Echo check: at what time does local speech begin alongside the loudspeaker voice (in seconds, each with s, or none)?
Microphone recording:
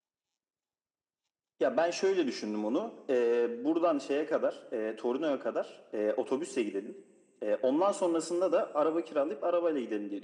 none